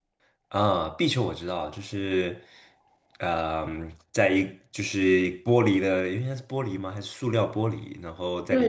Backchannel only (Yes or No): No